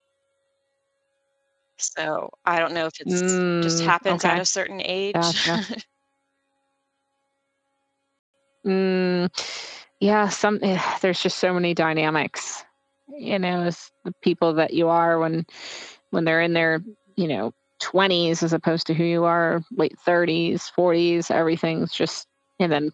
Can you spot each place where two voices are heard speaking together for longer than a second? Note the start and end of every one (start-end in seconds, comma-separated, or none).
3.1-4.4